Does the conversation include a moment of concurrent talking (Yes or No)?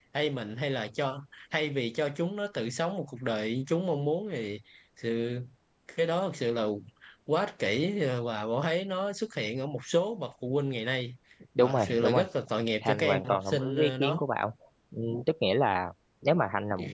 Yes